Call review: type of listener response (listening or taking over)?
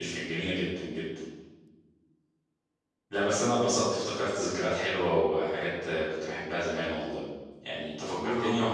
listening